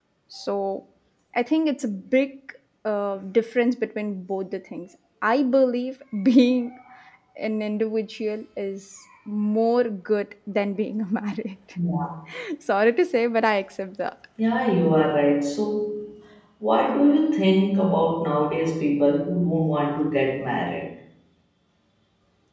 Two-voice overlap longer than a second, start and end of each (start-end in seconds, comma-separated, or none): none